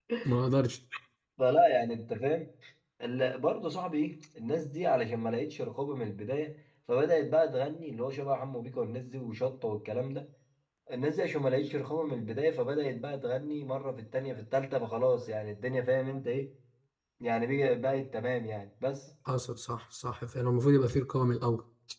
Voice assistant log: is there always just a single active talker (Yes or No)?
Yes